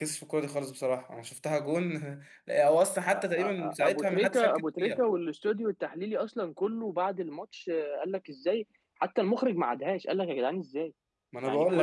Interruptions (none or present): present